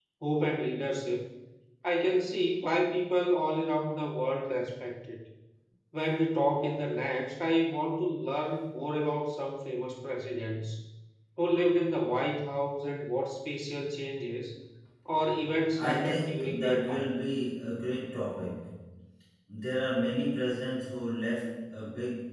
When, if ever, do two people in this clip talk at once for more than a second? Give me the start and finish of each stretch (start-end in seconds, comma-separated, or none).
15.8-17.1